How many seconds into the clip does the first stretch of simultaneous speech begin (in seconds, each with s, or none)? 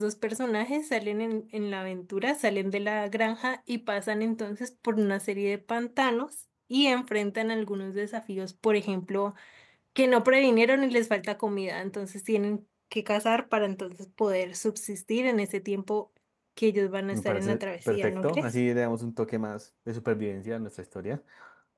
17.1 s